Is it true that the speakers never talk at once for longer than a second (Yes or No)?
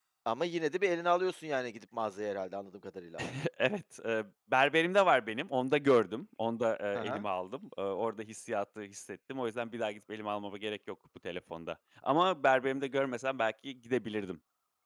Yes